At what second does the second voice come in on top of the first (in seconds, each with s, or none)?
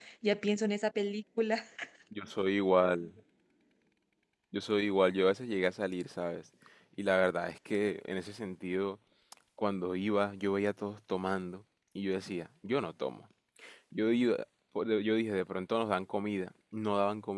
none